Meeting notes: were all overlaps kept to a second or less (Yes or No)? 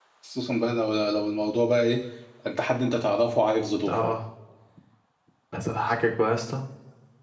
Yes